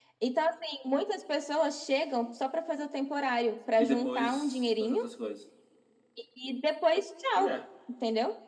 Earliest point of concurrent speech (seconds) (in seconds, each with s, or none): 3.8 s